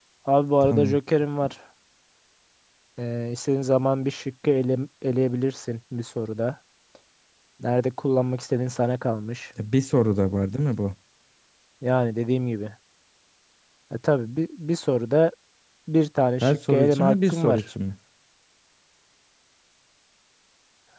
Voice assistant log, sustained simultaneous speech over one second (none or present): present